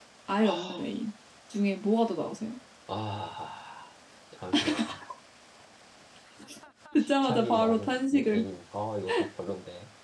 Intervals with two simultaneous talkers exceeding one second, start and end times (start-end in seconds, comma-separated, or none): 7.0-8.4